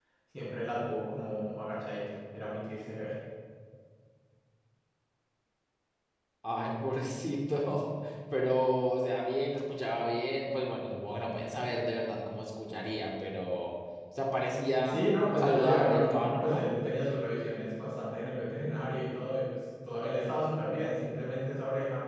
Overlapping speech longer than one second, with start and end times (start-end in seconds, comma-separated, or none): 14.8-16.7